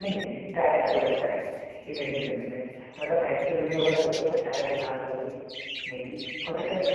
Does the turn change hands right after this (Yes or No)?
Yes